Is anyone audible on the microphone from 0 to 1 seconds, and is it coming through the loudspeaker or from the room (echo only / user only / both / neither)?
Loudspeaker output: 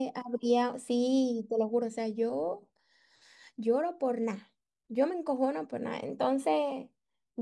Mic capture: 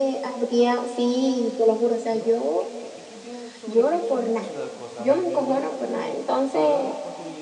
echo only